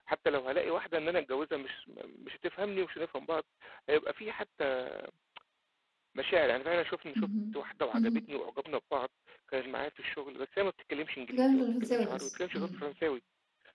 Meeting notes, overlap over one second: present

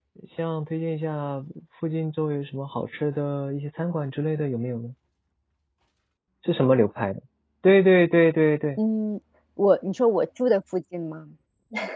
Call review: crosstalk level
none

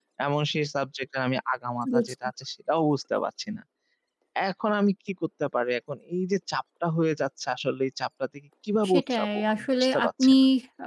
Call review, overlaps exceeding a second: present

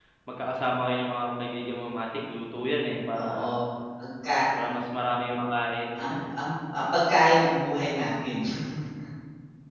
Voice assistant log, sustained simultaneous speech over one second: none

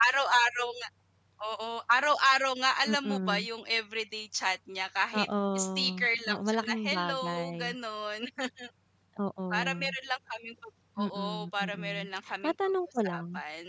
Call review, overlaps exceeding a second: present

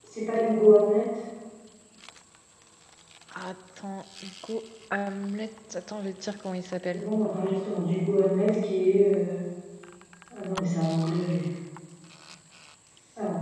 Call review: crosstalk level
none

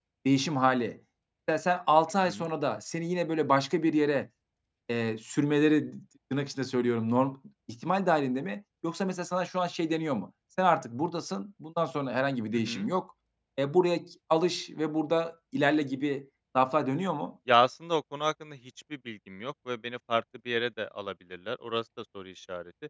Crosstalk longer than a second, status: none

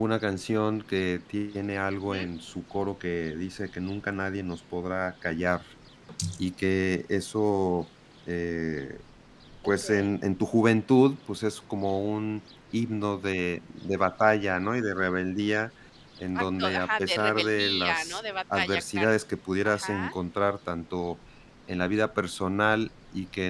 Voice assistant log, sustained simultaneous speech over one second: present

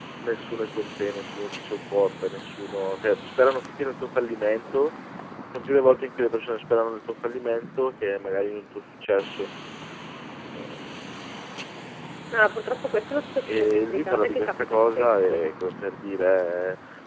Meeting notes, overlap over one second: present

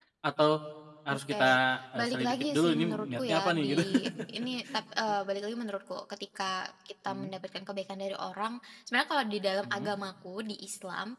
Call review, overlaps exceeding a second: present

